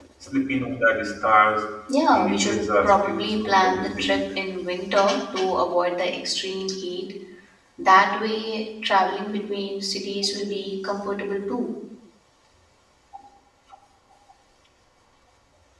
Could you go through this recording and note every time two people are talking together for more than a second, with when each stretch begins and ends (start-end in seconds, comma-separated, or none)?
2.1-4.2